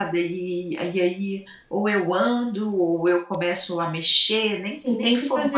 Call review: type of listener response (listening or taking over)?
taking over